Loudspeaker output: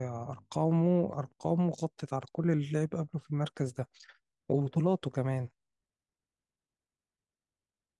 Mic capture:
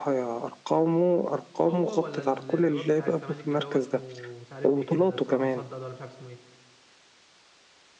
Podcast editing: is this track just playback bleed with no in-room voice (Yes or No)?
No